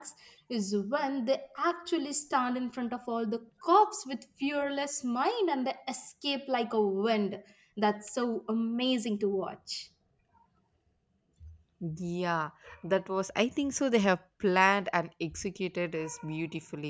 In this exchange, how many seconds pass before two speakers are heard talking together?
none

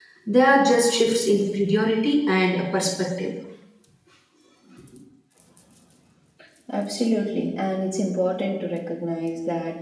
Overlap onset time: none

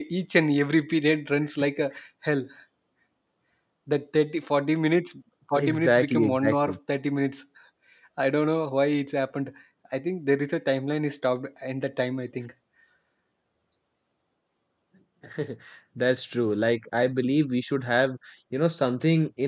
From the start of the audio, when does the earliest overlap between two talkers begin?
6 s

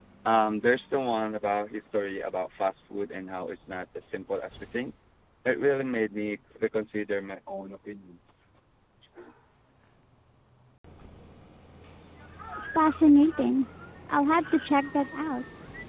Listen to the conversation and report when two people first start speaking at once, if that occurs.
none

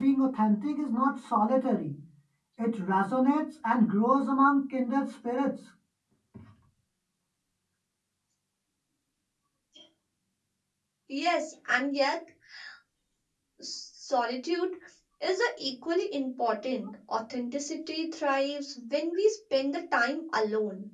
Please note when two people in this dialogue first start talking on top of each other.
none

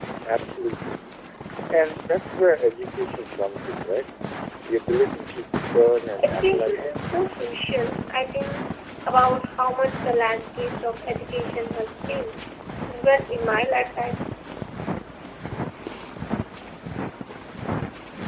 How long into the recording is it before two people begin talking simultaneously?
6 s

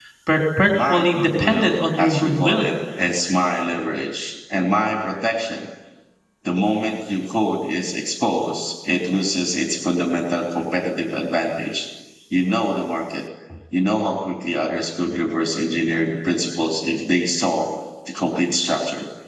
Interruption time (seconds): 1 s

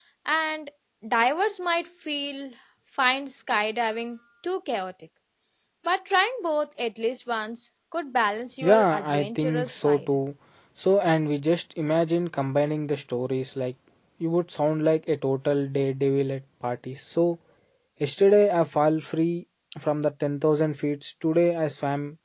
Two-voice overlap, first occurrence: 9 s

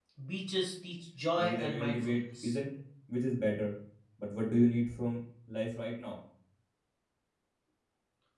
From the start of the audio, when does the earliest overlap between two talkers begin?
1 s

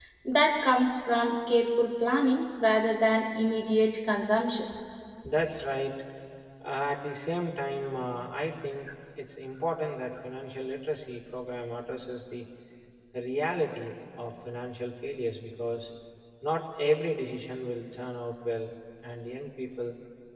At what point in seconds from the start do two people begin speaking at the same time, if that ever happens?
none

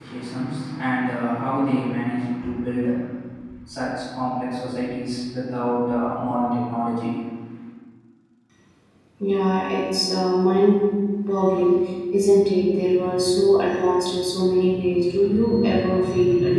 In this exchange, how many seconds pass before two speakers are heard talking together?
none

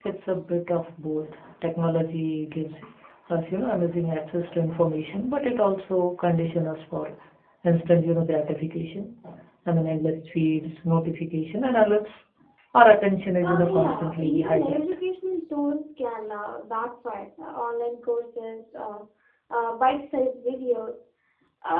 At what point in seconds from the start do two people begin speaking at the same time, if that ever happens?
13 s

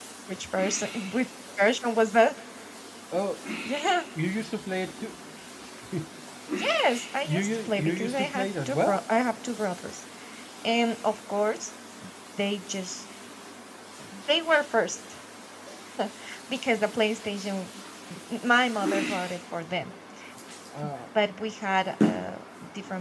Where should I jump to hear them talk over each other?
7 s

